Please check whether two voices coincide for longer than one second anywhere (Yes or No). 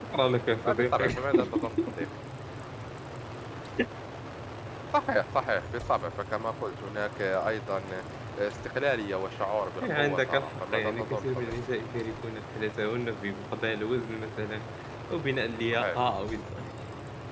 Yes